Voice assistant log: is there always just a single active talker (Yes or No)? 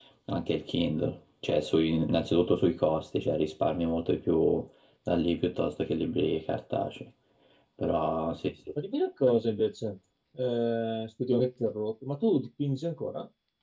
Yes